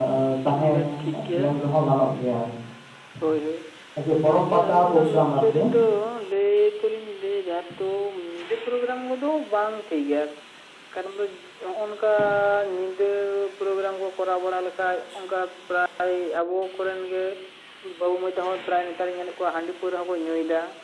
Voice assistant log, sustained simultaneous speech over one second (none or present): present